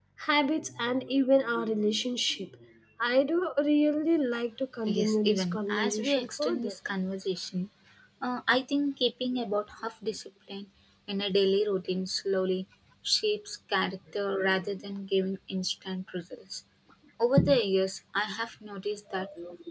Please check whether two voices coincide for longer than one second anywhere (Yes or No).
Yes